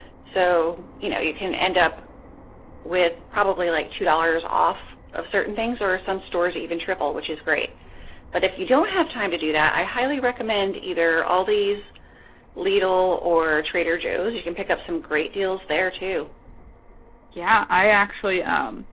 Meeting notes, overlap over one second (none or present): none